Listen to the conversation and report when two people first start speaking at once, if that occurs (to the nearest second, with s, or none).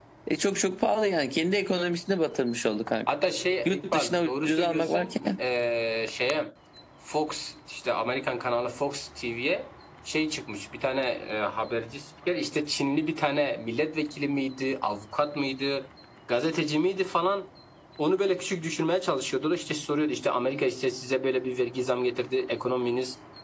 4 s